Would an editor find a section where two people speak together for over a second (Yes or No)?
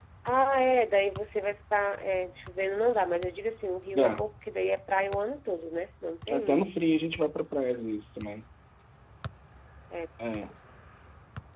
No